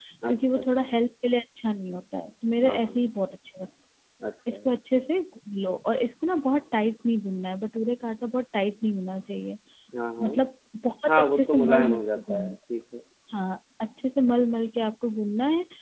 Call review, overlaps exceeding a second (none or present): present